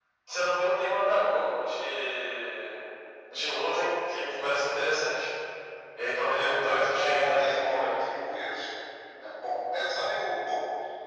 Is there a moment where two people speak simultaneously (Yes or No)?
Yes